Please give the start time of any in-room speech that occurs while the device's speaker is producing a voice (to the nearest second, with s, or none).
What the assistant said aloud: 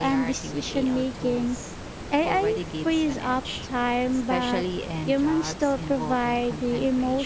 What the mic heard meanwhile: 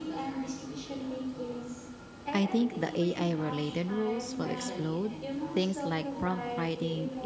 2 s